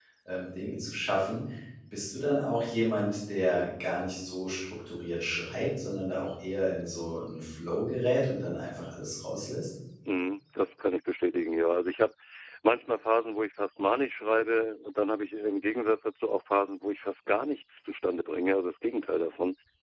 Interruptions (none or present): none